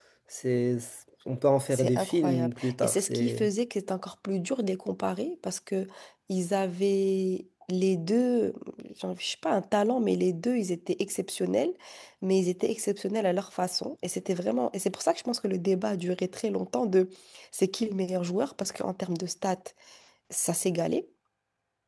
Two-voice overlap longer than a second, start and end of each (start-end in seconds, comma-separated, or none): 1.7-3.4